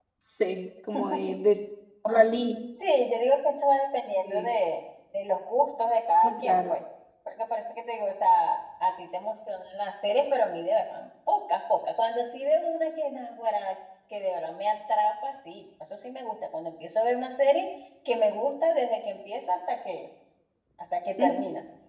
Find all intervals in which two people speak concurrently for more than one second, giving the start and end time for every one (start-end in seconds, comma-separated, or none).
none